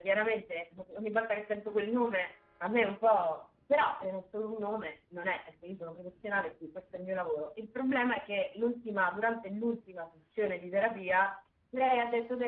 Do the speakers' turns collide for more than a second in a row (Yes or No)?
No